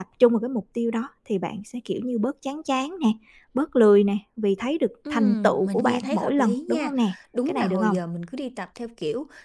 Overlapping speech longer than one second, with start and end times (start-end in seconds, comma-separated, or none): 5.1-6.9